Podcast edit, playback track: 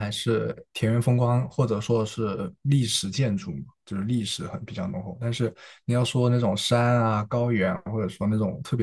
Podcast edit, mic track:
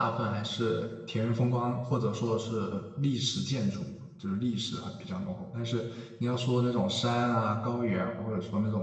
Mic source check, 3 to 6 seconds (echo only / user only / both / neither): echo only